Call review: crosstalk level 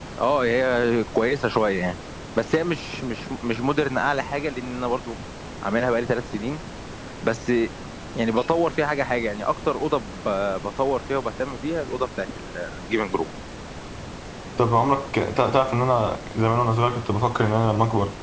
none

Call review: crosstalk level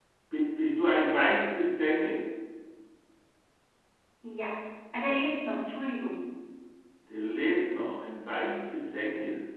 none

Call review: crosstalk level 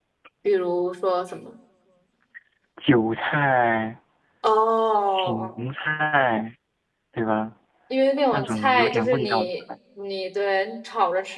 present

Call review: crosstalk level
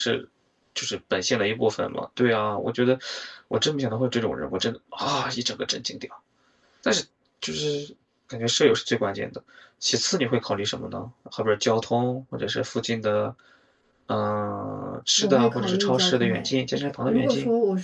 present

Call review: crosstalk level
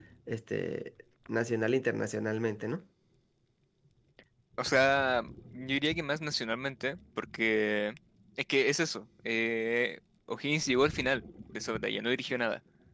none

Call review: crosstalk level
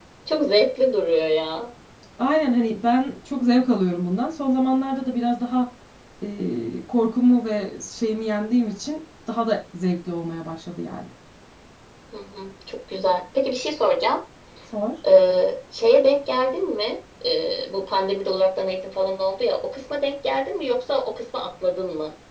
none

